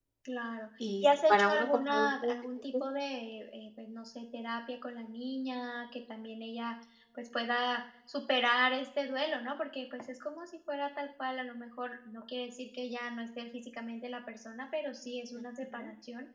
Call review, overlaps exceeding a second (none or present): present